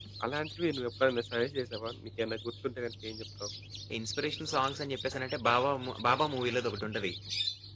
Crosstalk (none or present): none